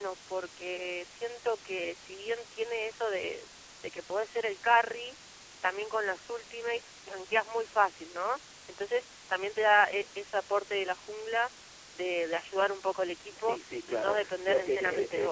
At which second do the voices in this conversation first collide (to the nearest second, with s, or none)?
13 s